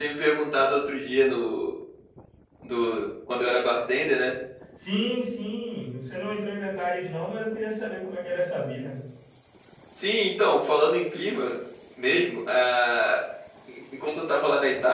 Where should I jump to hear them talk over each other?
none

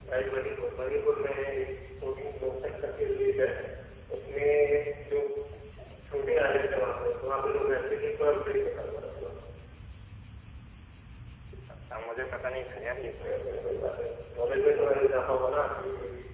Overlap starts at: none

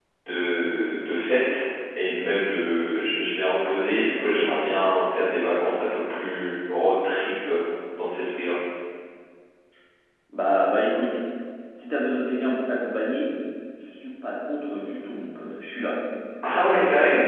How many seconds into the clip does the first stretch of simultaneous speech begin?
none

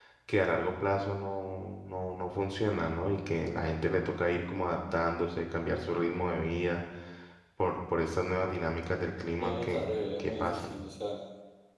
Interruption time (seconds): 9.4 s

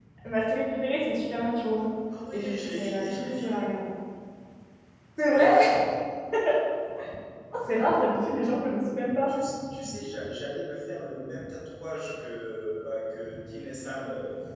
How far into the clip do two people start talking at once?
2.3 s

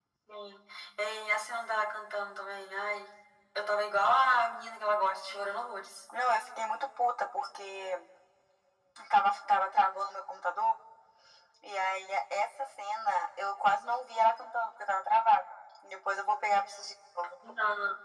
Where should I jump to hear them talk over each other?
none

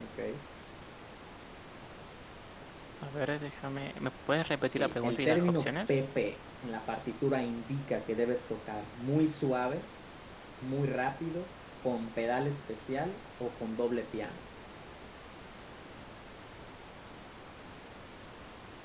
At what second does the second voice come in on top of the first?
4.7 s

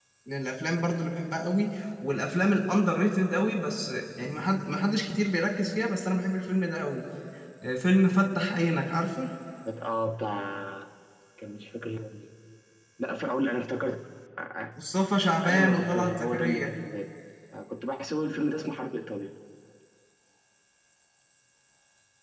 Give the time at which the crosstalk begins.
15.4 s

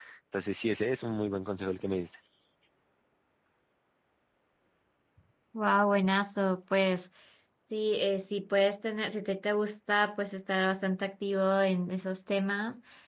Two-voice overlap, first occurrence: none

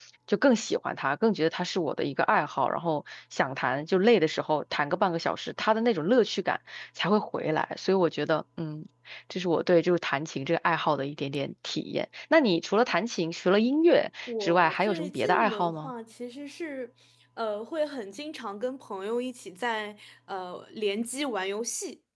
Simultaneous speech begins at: 14.3 s

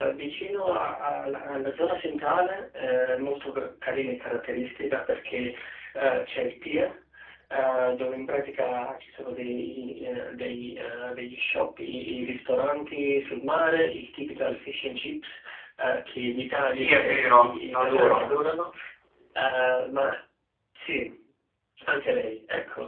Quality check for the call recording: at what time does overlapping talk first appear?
16.6 s

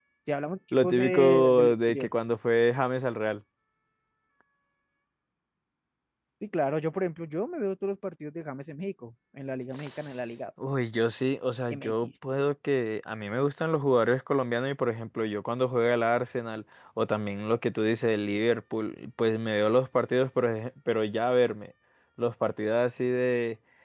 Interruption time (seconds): 0.8 s

